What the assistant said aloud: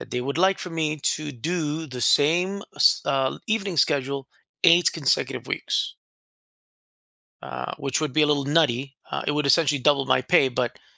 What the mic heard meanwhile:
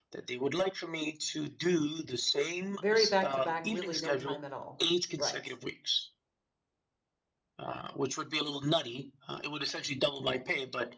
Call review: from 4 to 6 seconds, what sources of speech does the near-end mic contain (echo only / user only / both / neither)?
both